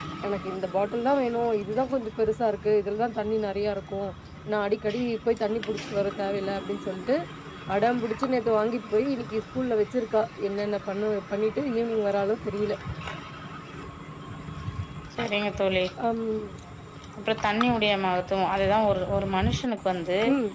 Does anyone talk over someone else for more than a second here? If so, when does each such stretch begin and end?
none

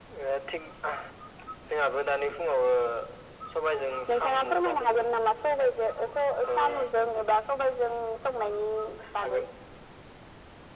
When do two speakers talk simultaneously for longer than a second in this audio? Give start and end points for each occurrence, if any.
3.7-5.1

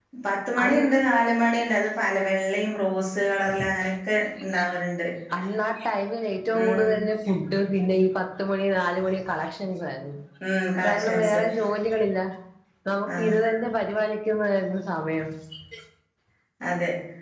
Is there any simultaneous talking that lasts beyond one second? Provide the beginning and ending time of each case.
none

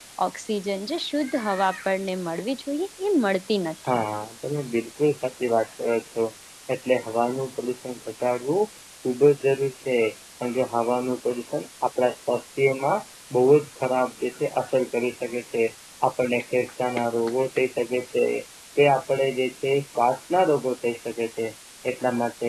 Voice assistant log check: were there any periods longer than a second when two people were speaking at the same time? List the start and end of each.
none

